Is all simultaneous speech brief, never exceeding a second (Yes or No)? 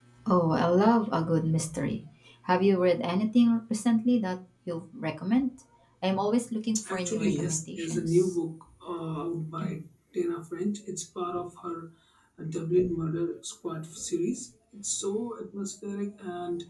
No